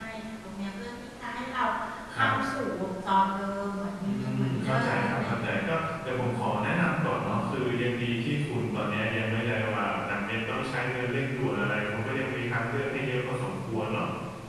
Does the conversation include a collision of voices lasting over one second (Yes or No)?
Yes